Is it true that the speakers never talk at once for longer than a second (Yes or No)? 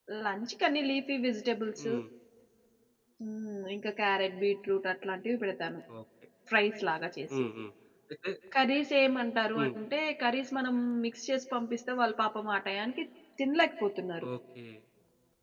Yes